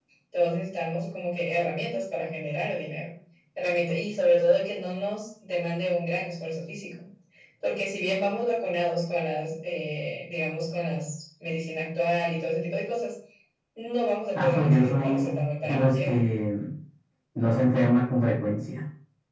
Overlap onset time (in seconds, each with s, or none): 14.3 s